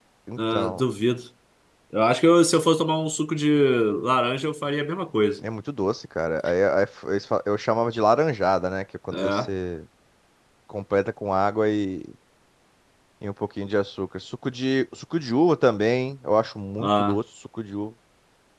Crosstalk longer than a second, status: none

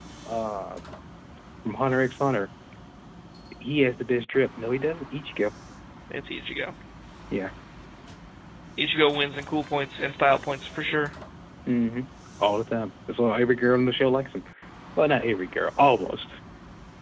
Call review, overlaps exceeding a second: none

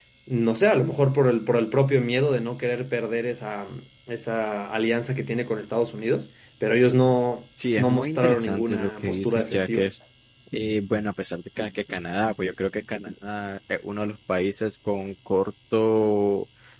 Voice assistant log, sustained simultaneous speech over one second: present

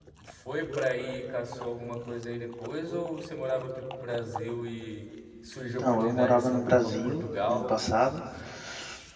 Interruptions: present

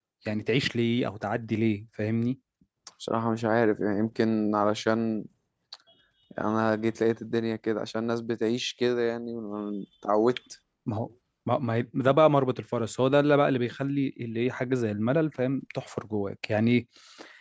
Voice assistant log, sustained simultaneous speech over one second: none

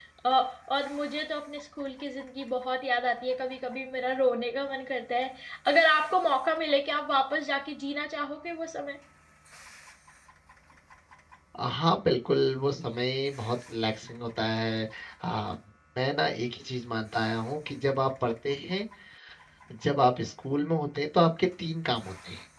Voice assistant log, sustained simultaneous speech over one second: none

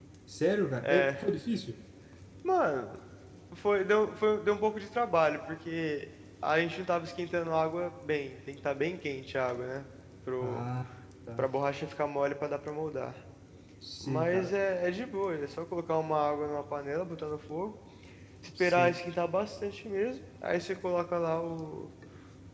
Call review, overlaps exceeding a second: none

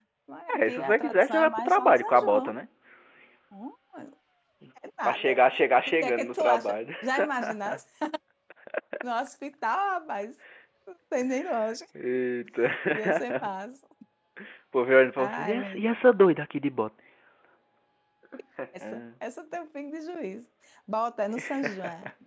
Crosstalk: present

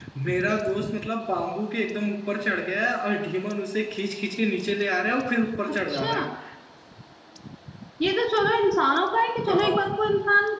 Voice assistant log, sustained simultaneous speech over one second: none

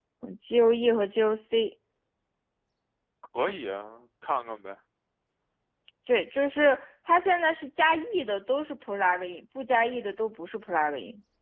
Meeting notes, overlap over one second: none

